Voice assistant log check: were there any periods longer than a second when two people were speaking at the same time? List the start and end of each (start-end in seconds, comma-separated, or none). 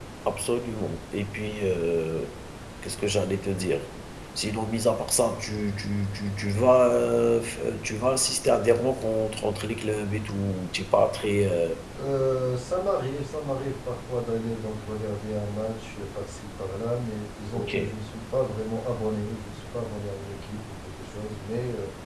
none